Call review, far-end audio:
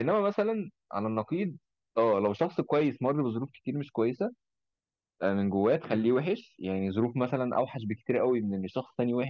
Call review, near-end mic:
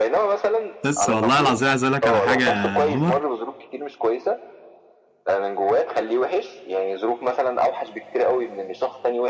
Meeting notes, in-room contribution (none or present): present